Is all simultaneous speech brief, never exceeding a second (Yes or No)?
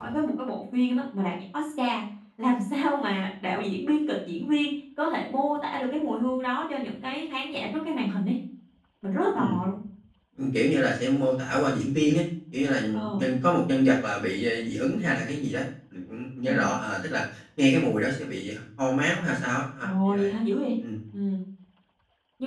Yes